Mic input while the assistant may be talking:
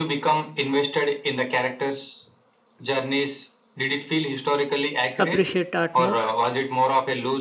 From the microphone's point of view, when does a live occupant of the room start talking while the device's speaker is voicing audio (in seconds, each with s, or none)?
5.2 s